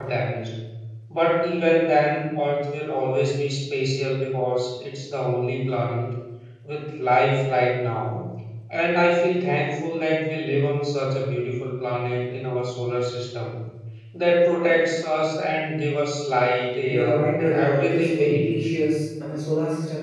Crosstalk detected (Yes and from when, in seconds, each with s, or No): Yes, from 16.9 s